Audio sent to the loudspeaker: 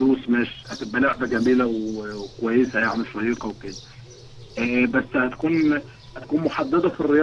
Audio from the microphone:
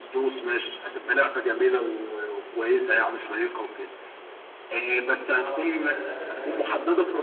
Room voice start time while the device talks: 5.2 s

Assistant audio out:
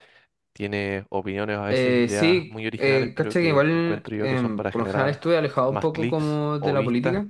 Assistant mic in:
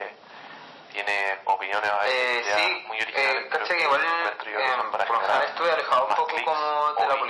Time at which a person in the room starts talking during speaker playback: none

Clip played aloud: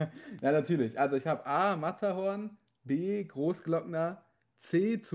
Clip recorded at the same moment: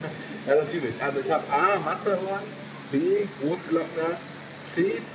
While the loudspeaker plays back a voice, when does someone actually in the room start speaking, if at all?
none

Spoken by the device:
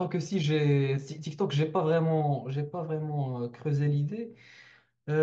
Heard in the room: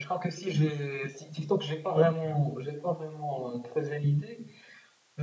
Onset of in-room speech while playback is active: none

